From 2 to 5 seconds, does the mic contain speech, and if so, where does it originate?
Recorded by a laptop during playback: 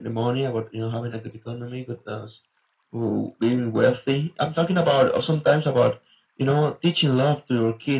echo only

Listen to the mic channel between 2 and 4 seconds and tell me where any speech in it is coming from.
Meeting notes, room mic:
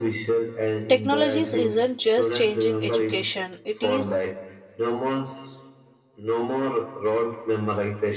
both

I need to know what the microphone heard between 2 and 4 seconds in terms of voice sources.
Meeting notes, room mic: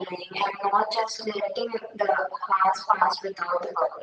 echo only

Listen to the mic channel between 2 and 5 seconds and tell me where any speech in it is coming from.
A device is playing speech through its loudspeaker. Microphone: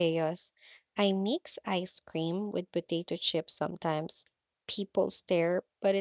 user only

